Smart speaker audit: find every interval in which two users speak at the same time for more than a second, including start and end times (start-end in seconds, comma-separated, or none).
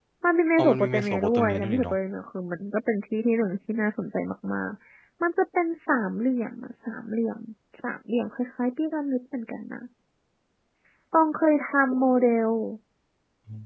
0.6-2.0